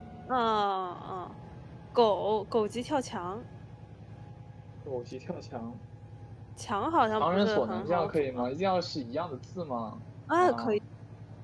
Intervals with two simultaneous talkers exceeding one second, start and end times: 7.2-8.4

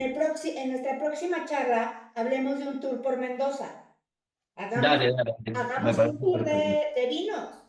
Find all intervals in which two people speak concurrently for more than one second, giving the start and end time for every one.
5.5-6.8

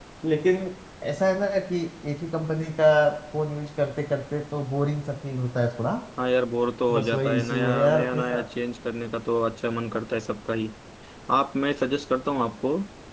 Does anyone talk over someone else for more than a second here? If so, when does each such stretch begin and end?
6.9-8.4

